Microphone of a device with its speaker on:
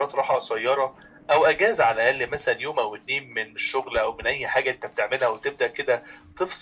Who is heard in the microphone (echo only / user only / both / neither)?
echo only